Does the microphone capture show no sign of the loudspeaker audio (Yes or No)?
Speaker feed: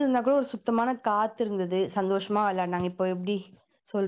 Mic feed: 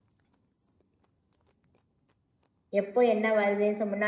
Yes